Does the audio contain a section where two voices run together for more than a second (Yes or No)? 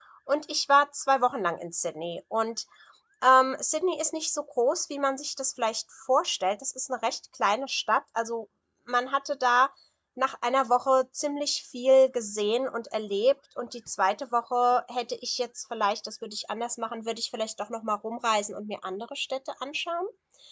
No